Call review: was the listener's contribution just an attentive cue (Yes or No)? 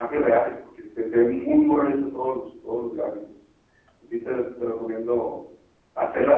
Yes